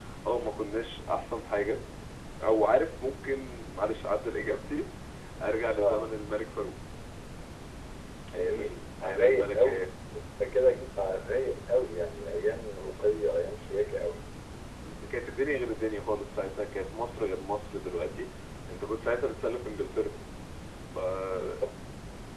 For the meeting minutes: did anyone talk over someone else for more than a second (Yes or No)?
Yes